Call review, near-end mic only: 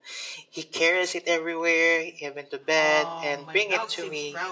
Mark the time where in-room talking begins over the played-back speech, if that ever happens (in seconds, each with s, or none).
2.7 s